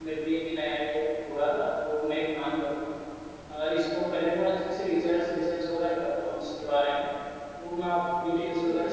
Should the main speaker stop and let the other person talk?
No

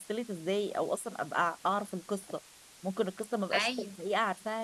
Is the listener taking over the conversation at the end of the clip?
No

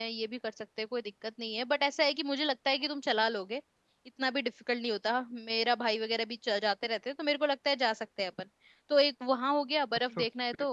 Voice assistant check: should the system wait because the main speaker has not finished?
No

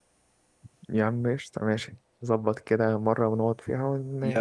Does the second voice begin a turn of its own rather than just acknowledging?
Yes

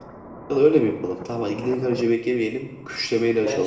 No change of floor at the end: Yes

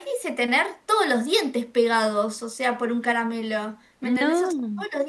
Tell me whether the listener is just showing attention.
Yes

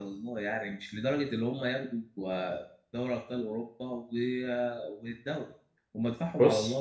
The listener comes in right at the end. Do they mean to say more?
No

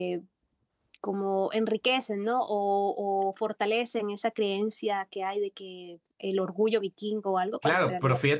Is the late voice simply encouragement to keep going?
No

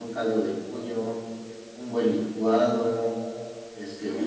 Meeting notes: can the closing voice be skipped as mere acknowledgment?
Yes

